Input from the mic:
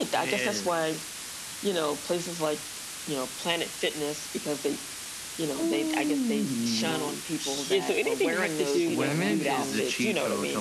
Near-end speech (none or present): present